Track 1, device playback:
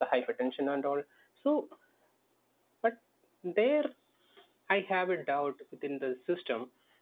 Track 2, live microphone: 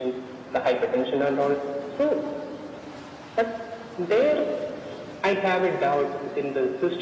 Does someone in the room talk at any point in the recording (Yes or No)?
No